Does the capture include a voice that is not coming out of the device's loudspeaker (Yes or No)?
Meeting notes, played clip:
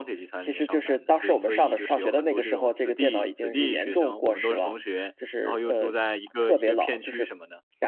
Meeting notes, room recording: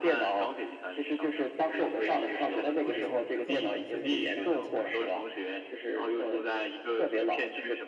Yes